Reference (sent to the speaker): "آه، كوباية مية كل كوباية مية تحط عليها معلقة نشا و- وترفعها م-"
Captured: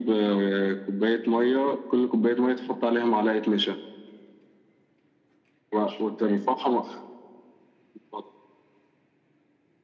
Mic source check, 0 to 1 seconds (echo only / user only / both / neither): echo only